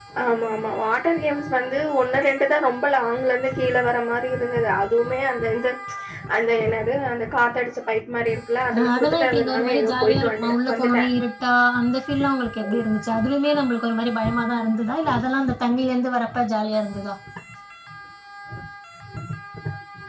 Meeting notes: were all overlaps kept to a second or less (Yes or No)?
No